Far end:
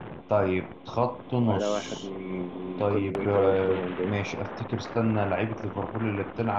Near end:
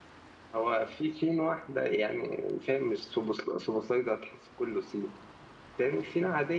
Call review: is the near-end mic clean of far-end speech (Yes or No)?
Yes